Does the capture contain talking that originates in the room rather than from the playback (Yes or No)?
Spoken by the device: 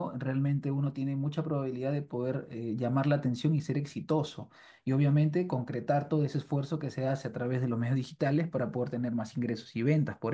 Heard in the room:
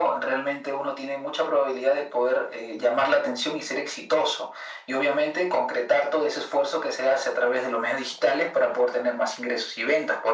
No